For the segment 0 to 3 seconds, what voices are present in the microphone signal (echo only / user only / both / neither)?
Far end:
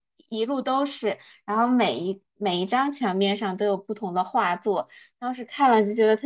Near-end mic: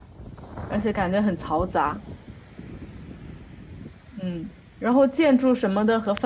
user only